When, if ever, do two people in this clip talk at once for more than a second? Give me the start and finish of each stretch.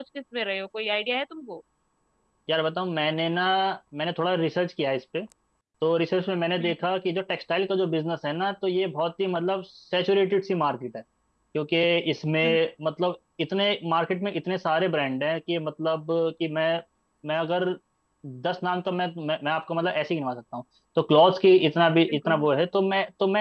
none

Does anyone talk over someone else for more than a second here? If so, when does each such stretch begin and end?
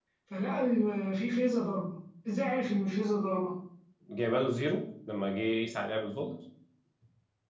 none

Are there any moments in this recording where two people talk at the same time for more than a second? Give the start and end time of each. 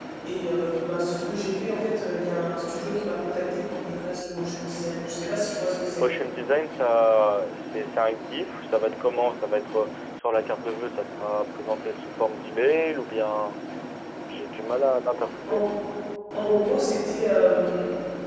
none

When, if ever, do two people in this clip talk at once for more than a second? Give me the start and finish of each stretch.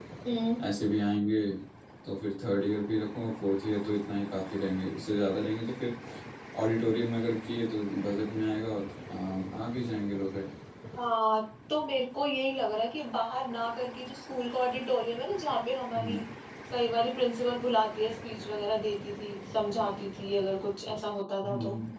none

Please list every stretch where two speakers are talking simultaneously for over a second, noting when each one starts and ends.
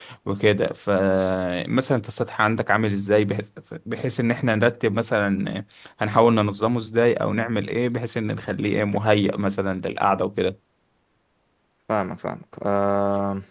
none

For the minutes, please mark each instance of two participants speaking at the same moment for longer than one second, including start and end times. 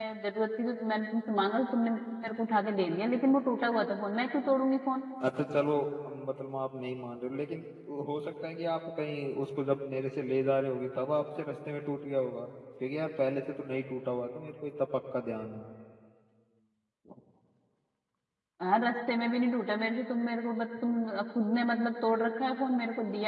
none

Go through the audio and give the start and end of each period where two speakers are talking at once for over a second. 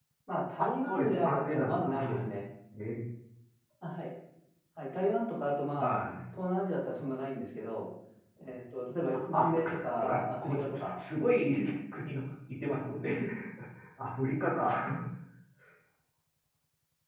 0.6-2.3, 9.1-10.8

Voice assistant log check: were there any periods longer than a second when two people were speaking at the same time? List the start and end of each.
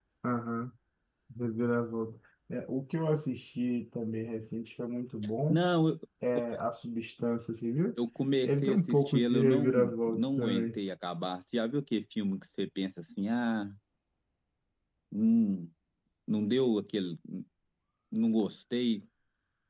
8.5-10.7

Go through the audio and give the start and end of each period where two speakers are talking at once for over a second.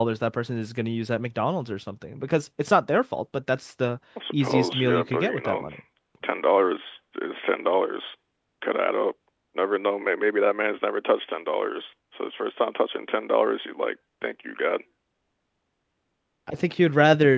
4.4-5.7

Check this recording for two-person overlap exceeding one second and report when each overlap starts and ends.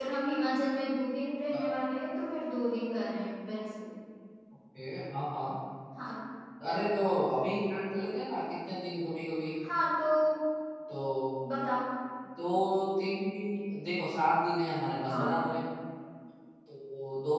none

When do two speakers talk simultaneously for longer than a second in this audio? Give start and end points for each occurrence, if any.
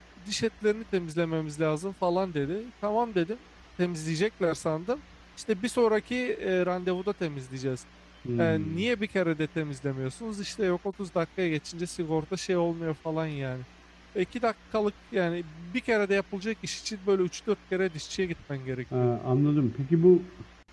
none

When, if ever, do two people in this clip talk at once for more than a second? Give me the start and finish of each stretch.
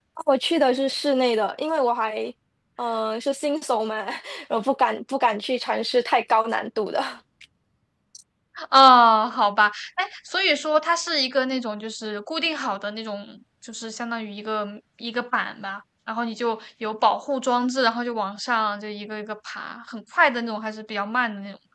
none

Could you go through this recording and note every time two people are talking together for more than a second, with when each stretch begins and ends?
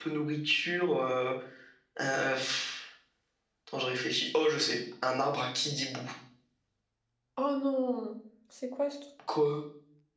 none

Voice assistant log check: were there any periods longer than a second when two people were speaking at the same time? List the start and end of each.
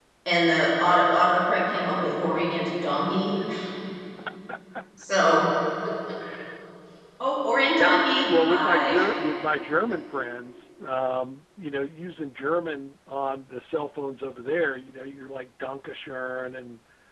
7.7-9.0

